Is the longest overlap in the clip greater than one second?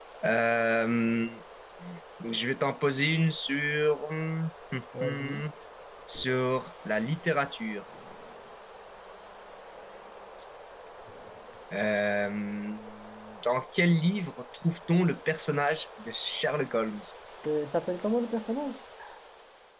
No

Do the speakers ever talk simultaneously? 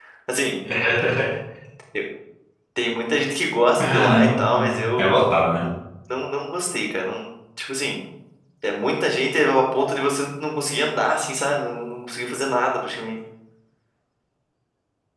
Yes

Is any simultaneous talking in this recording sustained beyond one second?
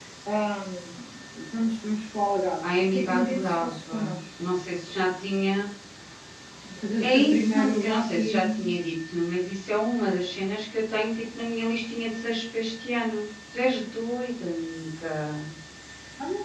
Yes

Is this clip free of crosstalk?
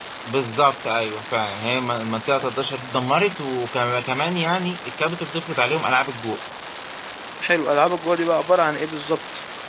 Yes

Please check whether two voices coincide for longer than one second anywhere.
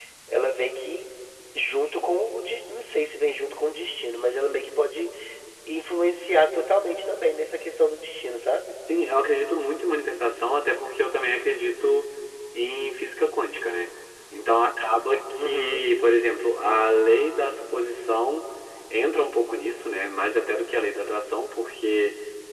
No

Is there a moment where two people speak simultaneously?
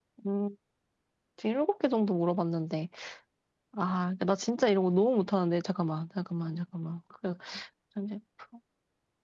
No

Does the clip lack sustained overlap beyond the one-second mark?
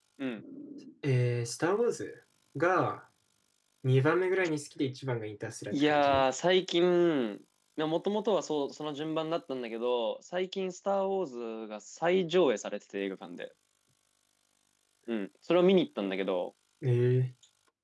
Yes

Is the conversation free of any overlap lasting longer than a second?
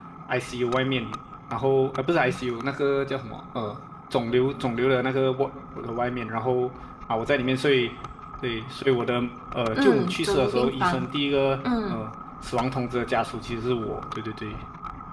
No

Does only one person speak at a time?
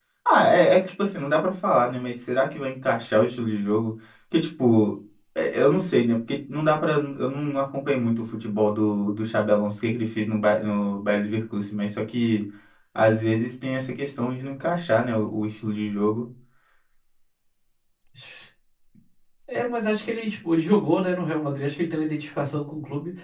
Yes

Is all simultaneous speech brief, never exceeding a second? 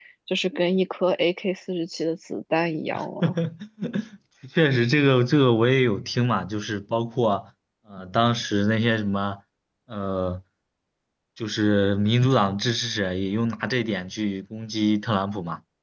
Yes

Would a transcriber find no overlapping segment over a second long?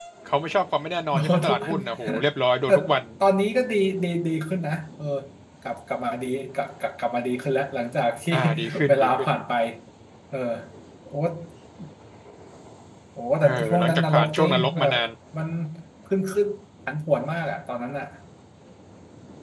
No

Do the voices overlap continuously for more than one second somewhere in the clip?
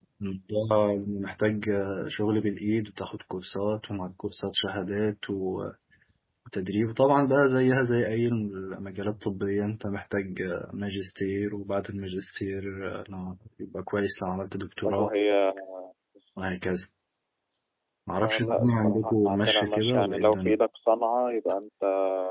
Yes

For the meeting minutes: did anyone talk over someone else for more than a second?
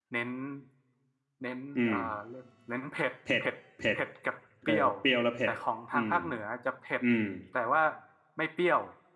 No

